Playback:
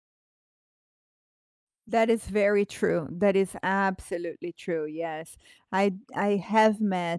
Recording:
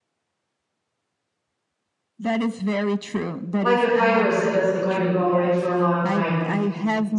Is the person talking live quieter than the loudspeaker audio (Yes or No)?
No